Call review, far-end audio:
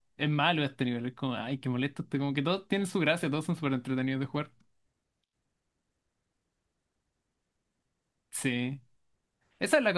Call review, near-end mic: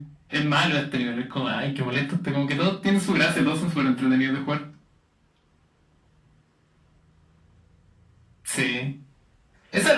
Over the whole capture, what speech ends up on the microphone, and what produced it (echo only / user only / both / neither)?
echo only